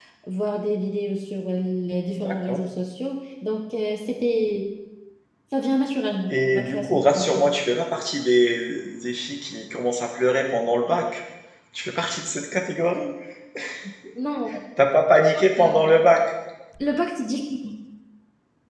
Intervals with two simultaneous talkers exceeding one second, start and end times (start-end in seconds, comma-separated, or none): 6.3-7.5